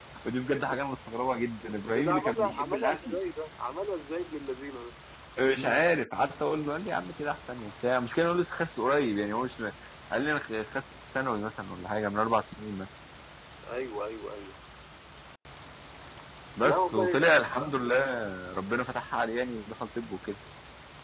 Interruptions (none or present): present